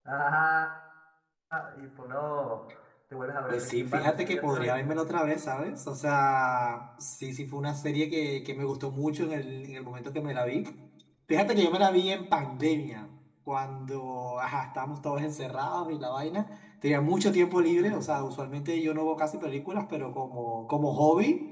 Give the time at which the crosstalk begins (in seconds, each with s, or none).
3.5 s